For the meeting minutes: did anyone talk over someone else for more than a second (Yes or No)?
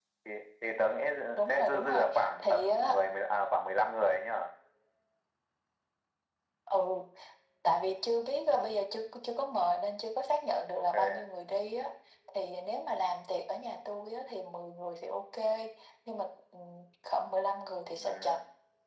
Yes